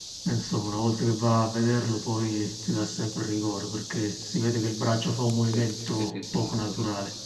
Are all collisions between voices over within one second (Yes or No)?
No